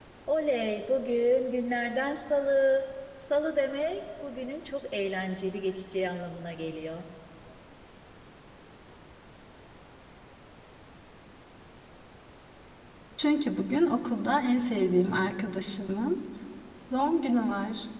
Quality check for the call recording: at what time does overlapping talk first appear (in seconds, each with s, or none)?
none